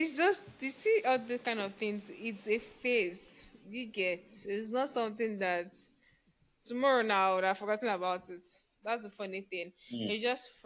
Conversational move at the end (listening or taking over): listening